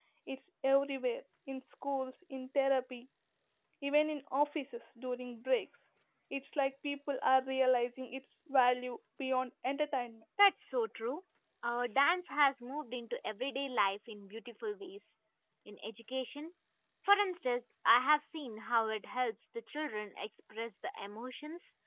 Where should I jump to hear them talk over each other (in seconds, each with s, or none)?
none